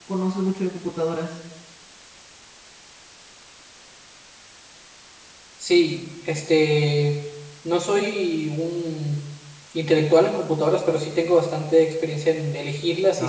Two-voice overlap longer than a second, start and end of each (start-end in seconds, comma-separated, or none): none